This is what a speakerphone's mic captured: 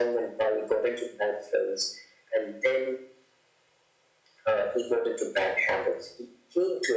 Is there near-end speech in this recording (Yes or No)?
No